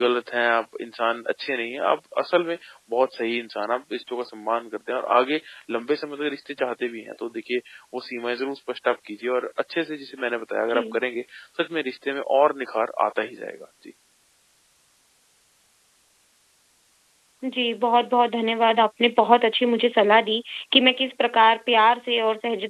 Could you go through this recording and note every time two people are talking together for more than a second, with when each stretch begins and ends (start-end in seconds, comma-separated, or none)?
none